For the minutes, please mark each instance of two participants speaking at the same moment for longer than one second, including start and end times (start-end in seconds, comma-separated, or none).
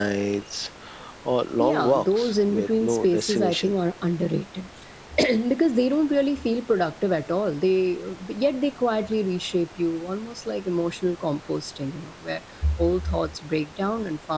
1.6-3.7